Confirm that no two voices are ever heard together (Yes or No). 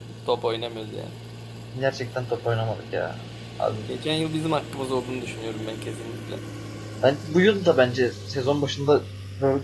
Yes